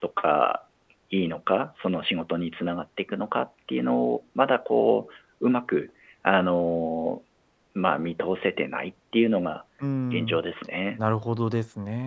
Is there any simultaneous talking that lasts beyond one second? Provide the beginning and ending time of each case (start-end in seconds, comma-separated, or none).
none